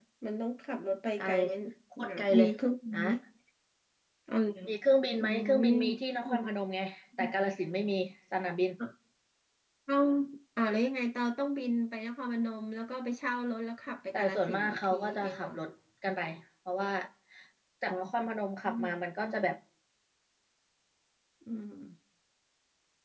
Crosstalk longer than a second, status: present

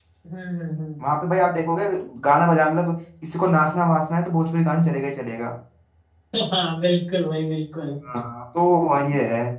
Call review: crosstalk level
none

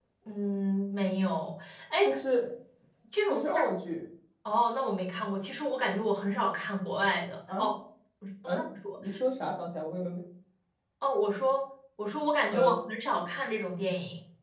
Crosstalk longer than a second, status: none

